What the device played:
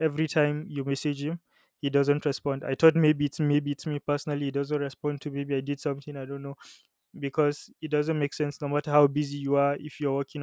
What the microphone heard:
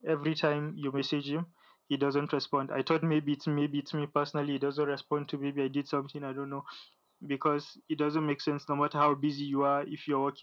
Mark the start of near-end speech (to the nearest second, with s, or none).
none